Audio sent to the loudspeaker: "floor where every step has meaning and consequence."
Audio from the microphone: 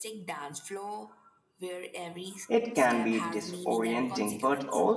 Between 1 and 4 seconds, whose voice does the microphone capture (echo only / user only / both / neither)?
both